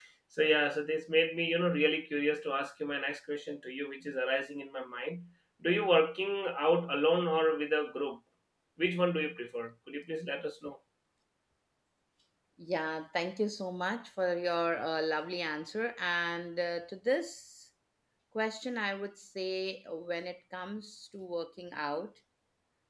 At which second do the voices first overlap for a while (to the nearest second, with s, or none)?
none